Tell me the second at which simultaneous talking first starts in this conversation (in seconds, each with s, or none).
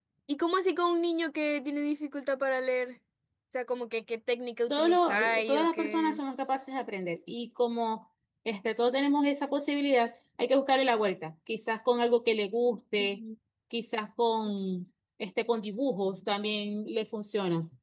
4.7 s